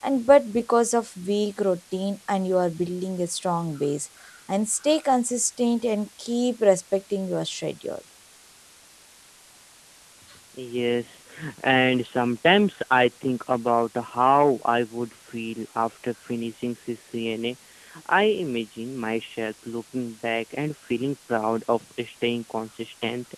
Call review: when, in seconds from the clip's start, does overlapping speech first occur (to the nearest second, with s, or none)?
none